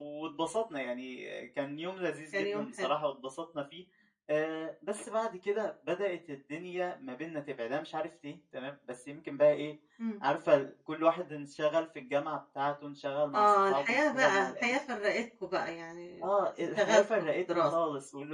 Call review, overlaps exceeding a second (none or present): present